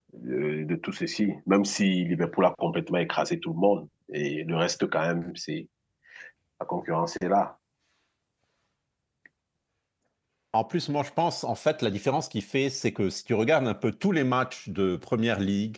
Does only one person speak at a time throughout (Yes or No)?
Yes